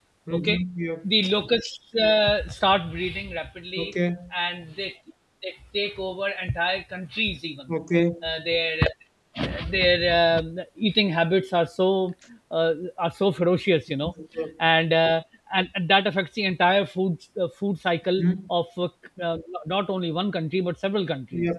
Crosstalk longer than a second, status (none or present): none